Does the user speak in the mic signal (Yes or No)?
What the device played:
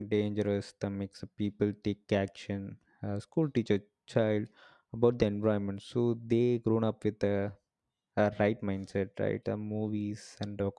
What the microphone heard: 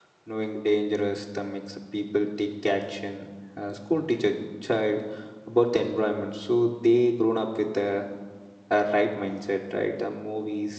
No